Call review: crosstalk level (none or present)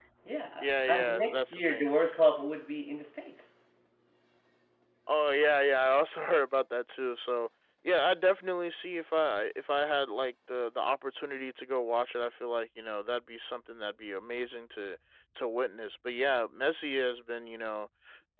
present